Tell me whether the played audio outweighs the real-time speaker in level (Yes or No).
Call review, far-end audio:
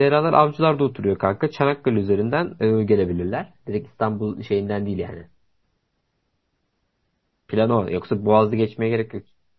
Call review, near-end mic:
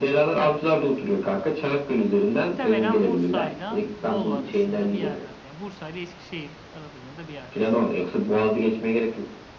Yes